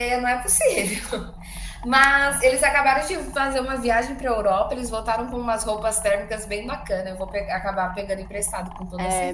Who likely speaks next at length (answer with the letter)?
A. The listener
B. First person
A